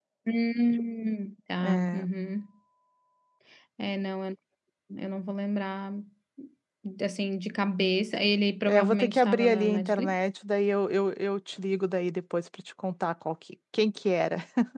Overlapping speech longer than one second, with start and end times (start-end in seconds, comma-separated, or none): 8.7-10.1